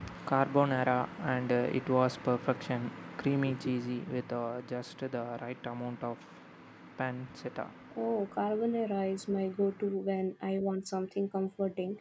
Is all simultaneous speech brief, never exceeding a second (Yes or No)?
Yes